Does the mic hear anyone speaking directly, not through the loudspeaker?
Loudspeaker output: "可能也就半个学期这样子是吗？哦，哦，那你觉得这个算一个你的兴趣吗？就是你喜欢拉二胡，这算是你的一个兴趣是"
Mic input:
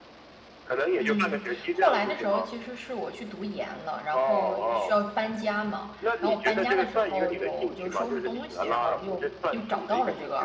Yes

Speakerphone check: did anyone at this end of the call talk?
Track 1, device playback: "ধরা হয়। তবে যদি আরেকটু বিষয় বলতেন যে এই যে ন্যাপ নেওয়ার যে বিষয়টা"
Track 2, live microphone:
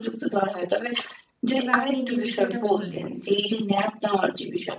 Yes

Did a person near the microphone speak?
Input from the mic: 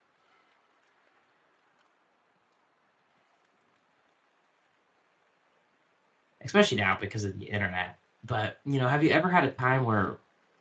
Yes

